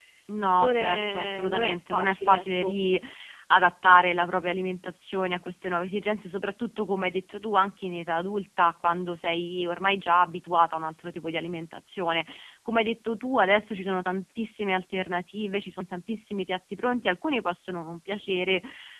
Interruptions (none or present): present